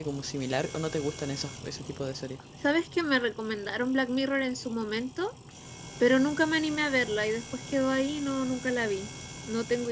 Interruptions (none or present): none